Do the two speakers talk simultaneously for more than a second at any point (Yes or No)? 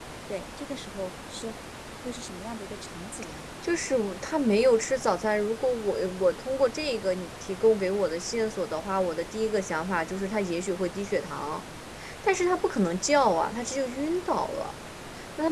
No